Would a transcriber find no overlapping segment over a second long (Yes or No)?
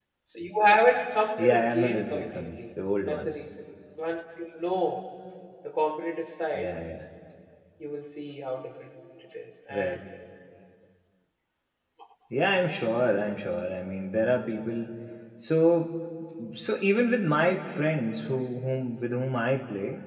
No